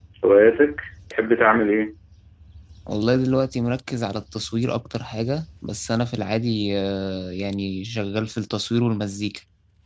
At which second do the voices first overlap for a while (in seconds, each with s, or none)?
none